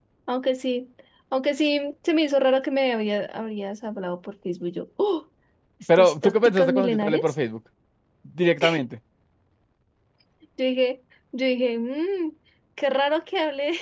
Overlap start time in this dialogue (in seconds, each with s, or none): 6.0 s